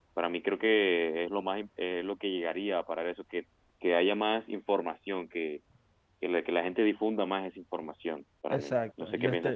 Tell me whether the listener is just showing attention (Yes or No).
No